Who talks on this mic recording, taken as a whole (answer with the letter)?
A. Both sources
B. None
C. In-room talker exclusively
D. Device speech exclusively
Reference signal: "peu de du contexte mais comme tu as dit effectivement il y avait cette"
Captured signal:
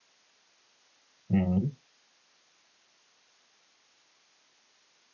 C